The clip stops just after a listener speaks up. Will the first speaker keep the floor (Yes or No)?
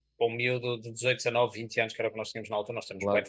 Yes